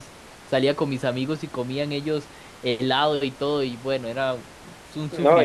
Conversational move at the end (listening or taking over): taking over